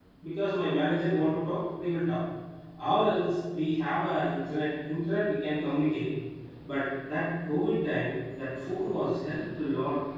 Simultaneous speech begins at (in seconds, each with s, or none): none